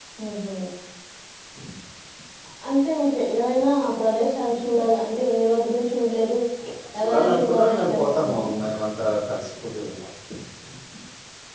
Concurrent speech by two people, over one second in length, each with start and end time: 7.0-8.4

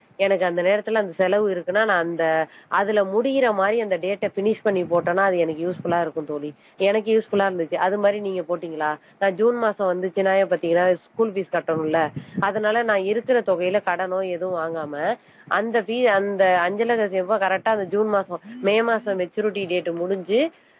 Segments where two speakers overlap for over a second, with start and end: none

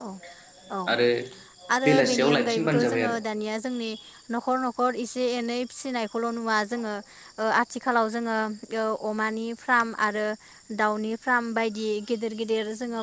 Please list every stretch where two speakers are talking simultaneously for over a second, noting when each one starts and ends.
1.8-3.2

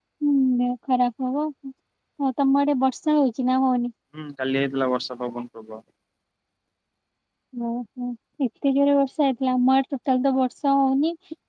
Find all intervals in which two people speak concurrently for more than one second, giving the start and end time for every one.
none

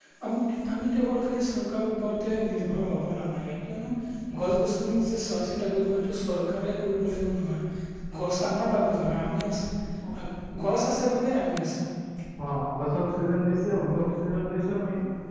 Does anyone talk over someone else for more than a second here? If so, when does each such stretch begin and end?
none

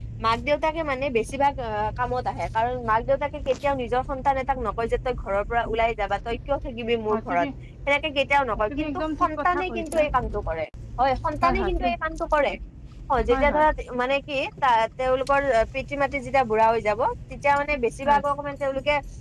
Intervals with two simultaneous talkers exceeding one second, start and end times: 8.7-10.0

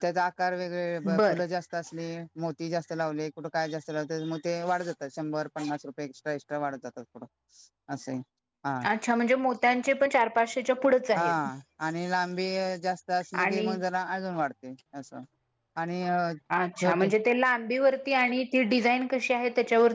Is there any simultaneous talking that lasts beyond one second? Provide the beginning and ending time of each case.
none

